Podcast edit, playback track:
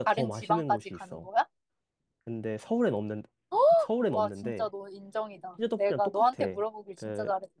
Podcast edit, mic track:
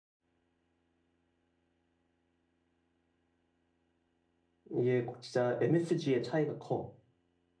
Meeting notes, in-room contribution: present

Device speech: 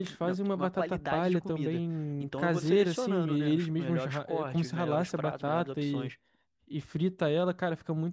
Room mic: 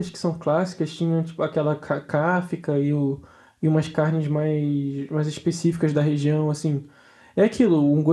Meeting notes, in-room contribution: present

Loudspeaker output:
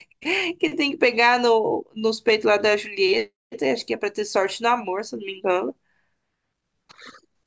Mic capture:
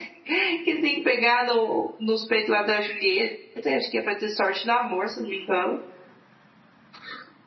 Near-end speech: none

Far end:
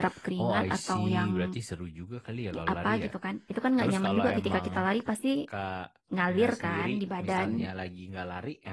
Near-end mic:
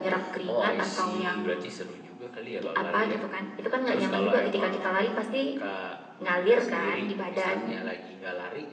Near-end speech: none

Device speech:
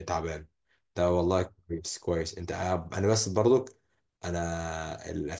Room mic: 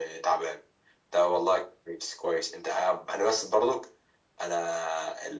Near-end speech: none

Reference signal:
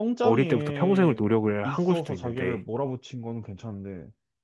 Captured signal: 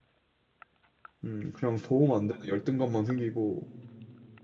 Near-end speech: present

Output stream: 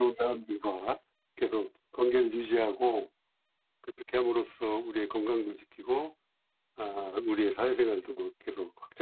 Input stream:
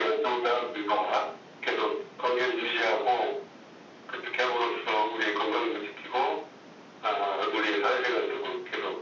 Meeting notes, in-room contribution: none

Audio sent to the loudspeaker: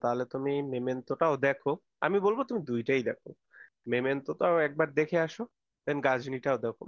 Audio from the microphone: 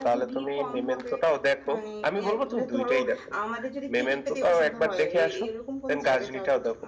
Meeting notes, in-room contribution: present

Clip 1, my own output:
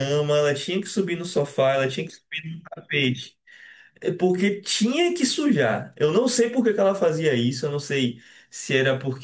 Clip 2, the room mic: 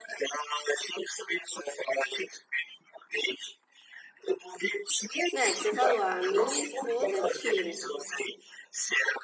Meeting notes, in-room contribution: present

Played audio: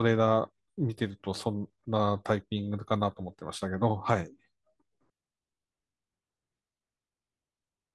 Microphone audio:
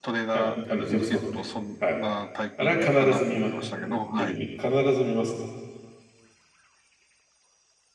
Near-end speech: present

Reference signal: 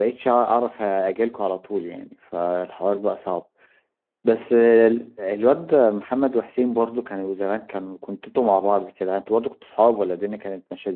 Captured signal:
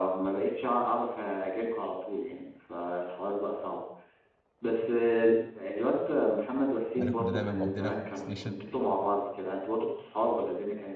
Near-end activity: present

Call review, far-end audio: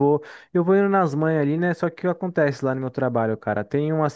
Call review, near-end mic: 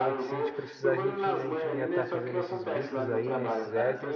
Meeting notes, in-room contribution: present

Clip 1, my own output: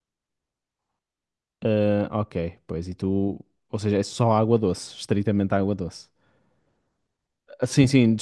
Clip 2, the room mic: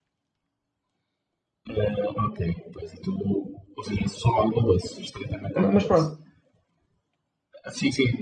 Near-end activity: present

